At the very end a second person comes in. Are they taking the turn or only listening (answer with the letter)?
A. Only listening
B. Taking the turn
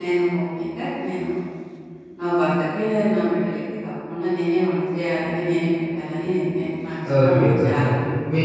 B